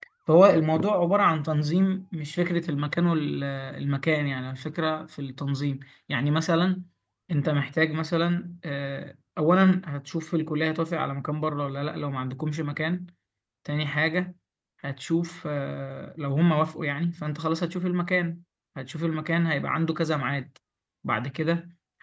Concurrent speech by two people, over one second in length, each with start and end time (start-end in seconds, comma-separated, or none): none